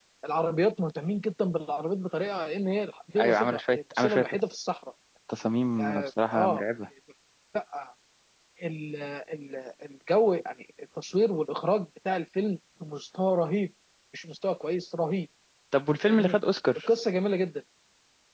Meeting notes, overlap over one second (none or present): present